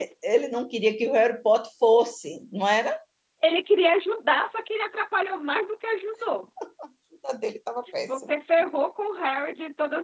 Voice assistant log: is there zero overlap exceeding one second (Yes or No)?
Yes